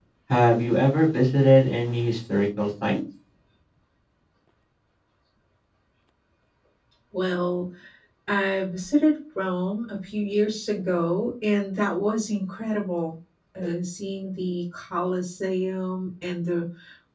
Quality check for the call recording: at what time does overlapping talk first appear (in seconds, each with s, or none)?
none